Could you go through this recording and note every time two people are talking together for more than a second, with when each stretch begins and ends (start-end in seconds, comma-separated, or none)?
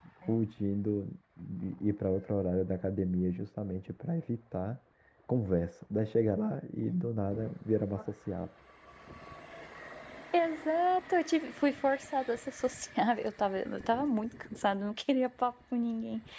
none